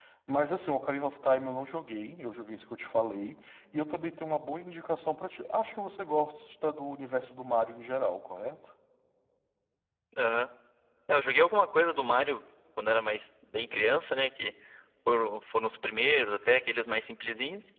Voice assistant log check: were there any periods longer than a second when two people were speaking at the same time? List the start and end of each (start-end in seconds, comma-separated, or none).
none